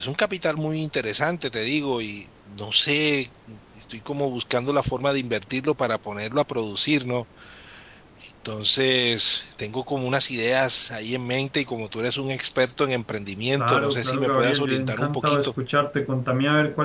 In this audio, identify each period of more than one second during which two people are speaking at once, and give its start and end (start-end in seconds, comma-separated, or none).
13.6-15.5